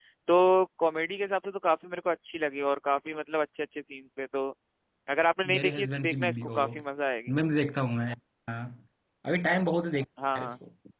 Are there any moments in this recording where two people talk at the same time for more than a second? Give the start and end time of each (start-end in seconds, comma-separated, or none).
5.6-6.8